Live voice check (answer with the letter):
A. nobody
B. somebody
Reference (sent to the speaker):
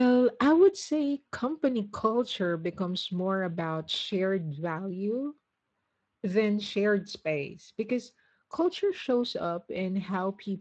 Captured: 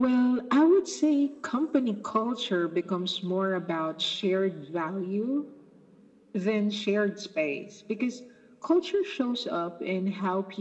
A